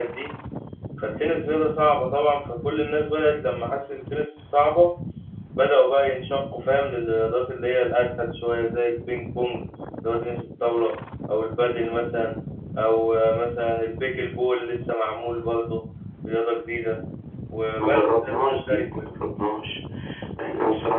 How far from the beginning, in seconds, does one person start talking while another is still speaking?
17.7 s

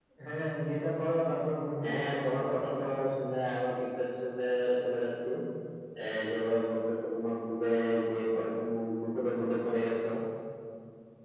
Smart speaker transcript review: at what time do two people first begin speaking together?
1.8 s

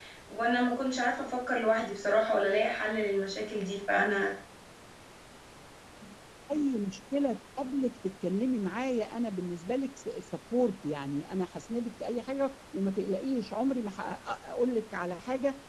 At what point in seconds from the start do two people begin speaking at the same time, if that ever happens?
none

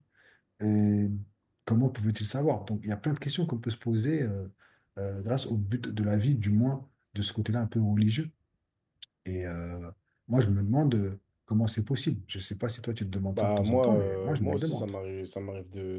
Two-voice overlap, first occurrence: 13.4 s

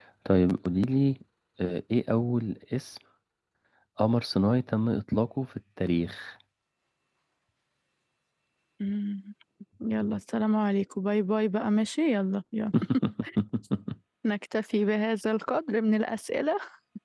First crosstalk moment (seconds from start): none

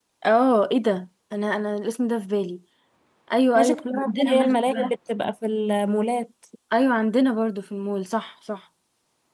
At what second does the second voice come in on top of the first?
3.5 s

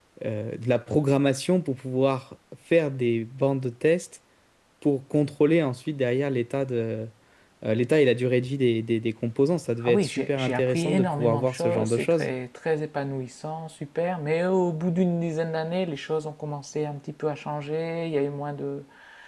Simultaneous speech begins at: 9.8 s

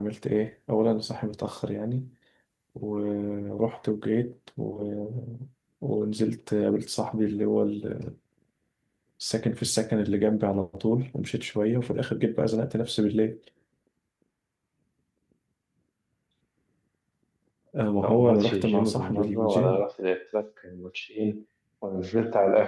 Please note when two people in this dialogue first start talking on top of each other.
18.0 s

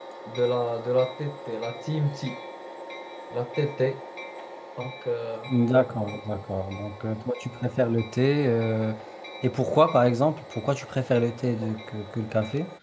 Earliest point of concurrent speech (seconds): none

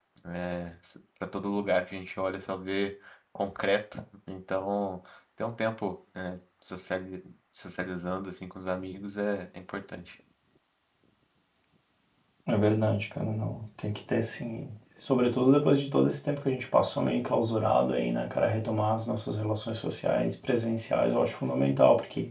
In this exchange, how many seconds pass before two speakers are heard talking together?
none

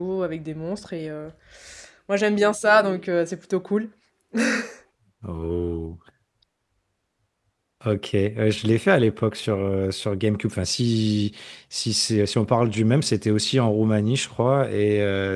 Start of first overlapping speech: none

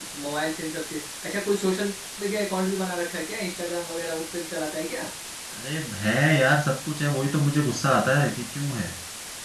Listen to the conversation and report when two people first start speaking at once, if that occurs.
none

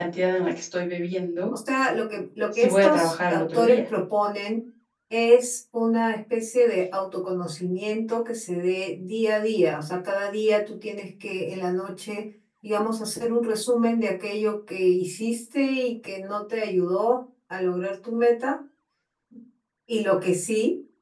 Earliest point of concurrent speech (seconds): 2.5 s

